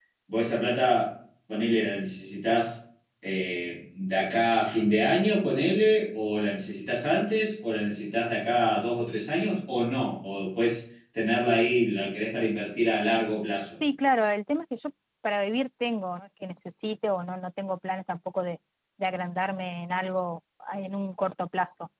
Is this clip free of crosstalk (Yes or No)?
Yes